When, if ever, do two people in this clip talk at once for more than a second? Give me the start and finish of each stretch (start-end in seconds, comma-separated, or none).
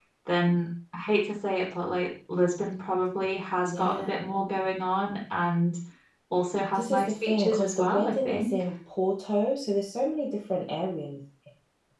6.7-8.5